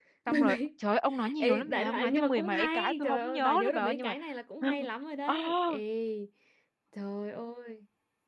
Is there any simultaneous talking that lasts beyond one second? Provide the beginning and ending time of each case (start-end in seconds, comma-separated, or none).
1.4-4.2